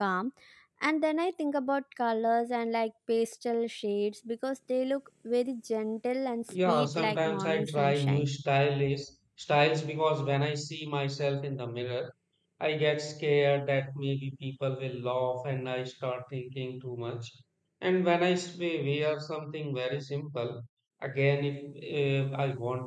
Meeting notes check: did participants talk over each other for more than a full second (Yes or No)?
Yes